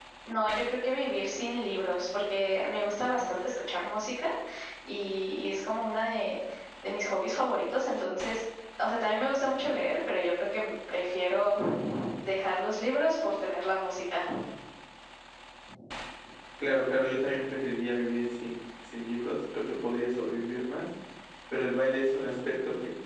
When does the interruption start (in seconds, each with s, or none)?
none